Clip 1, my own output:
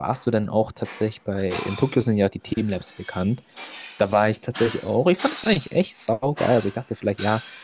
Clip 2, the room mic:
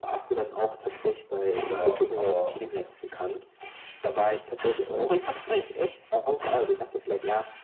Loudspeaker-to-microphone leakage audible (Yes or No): Yes